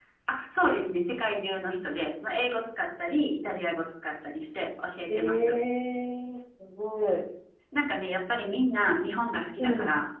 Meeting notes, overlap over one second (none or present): none